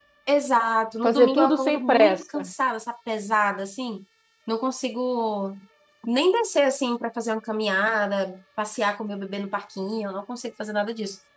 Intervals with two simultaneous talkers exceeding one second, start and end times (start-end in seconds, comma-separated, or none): 1.0-2.5